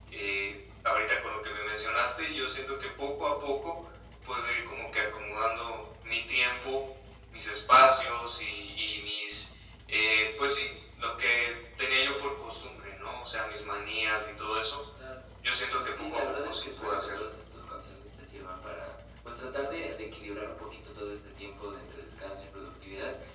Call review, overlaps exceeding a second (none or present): present